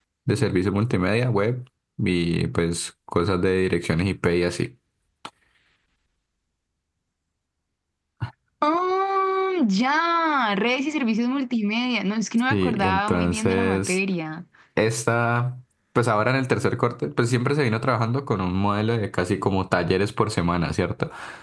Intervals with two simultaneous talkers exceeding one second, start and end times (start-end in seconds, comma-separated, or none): 12.5-14.0